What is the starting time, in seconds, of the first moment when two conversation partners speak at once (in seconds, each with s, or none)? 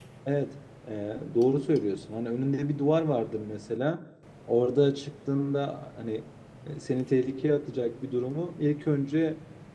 none